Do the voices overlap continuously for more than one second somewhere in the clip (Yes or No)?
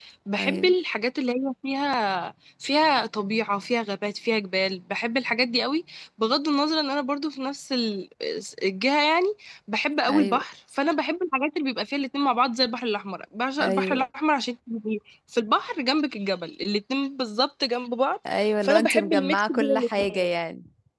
Yes